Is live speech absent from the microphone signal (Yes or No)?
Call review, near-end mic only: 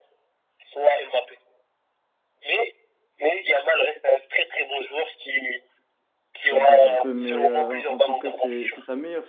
No